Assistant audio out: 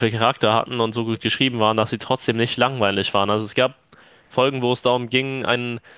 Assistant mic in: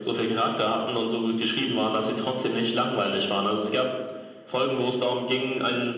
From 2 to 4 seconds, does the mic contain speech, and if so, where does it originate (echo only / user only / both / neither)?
echo only